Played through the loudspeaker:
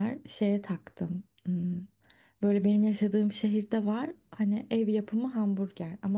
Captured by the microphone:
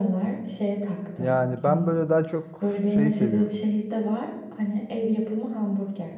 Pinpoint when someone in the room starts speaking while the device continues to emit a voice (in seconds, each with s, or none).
1.2 s